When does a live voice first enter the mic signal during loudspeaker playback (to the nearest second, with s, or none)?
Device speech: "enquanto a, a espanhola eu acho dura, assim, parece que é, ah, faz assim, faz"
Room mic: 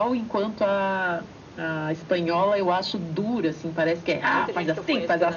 4 s